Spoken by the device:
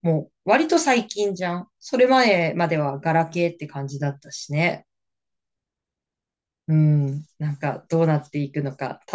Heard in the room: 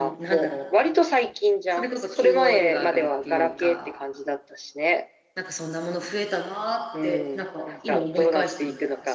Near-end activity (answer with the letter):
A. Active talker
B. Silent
A